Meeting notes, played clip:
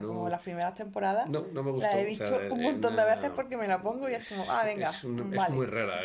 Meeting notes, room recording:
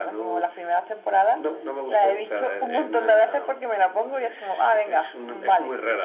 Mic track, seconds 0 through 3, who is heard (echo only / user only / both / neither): echo only